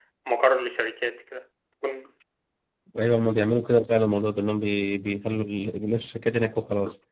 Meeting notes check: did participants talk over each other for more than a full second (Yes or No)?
No